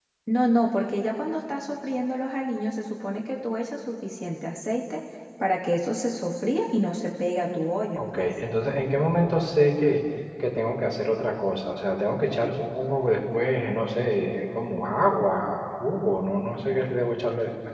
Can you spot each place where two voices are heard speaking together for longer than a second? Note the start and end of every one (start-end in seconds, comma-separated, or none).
none